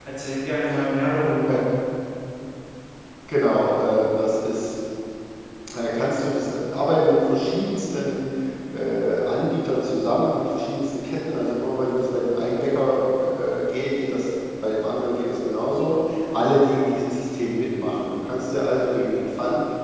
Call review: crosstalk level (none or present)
none